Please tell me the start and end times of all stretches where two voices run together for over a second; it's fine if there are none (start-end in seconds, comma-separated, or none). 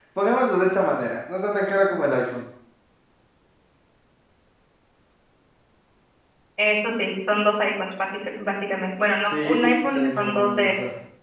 9.4-10.7